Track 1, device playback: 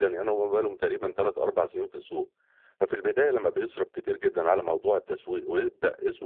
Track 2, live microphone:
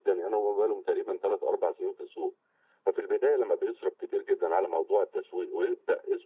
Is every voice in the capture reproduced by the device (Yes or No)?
Yes